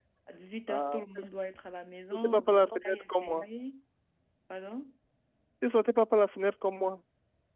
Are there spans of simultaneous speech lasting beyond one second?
Yes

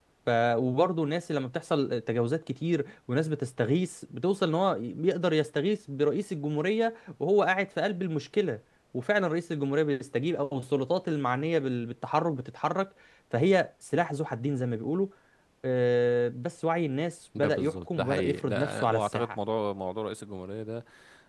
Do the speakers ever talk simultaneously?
Yes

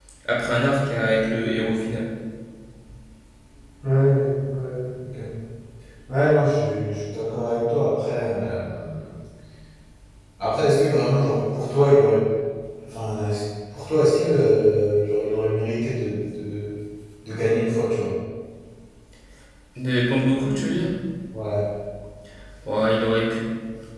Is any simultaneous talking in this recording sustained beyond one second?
No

